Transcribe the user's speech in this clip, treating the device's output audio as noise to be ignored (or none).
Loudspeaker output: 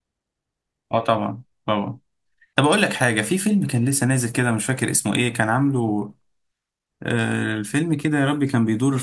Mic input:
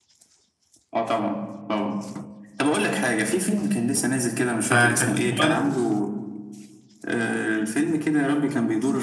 فكانت كواليتي